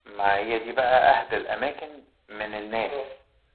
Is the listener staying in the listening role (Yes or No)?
Yes